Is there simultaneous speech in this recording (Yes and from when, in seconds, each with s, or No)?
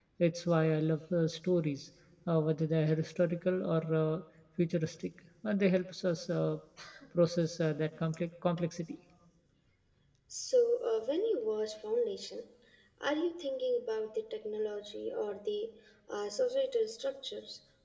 No